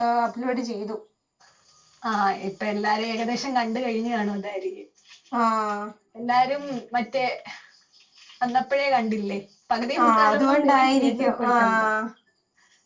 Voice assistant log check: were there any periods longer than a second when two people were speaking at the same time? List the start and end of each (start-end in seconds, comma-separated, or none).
10.0-11.9